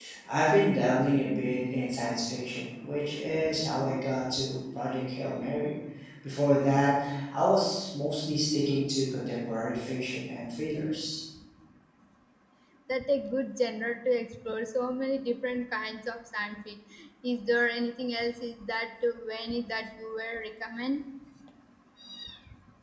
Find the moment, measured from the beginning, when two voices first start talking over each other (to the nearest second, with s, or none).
none